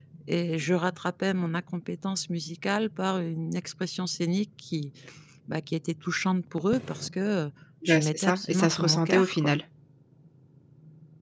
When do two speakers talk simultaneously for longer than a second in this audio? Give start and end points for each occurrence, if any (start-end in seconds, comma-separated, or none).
7.8-9.6